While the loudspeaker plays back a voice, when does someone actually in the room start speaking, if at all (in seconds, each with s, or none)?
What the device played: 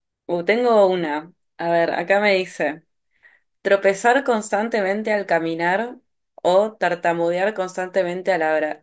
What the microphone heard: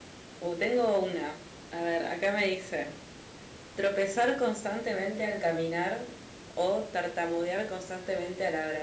none